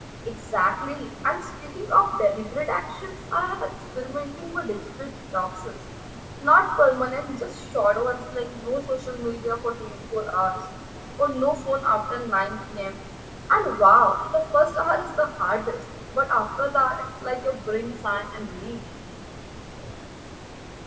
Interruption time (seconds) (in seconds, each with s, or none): none